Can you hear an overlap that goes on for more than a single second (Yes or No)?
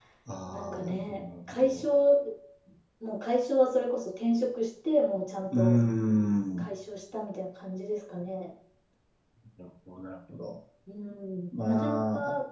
Yes